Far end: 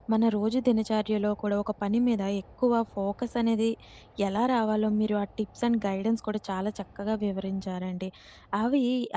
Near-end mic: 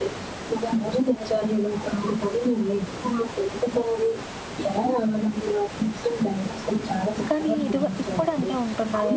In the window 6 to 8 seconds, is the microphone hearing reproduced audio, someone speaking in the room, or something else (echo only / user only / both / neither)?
both